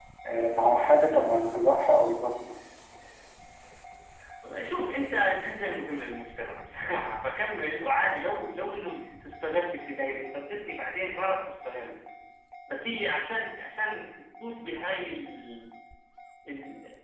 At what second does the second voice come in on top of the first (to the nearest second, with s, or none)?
none